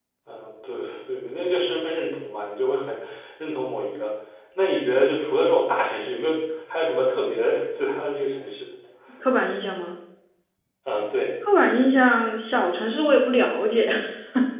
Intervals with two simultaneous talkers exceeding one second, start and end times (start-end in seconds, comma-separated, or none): none